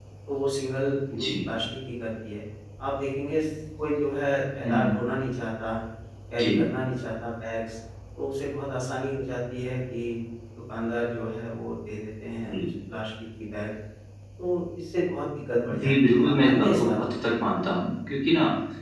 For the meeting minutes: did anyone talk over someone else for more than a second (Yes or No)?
Yes